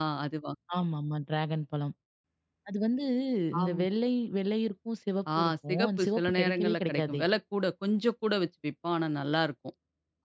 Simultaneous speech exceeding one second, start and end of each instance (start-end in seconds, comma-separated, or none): 5.4-7.2